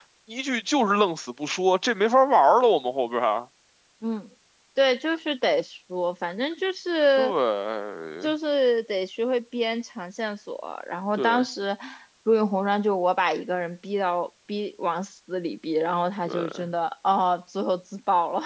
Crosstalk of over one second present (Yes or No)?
No